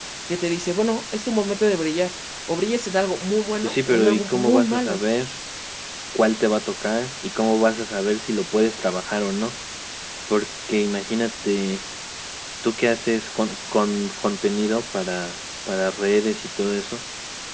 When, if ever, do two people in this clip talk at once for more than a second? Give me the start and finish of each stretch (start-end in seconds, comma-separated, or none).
3.6-5.0